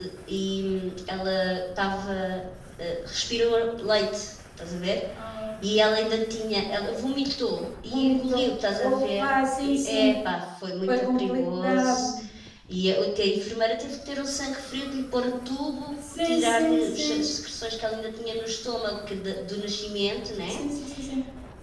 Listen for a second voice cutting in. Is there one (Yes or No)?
Yes